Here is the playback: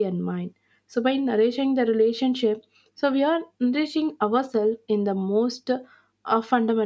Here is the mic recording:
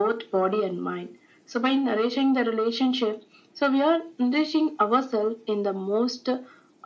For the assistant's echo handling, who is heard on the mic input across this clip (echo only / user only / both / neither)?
echo only